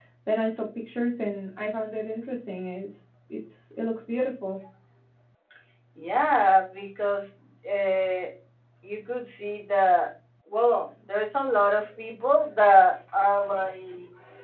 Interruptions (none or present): none